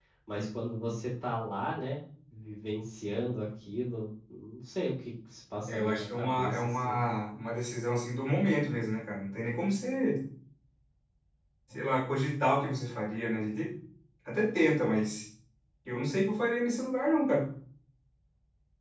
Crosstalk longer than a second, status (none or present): present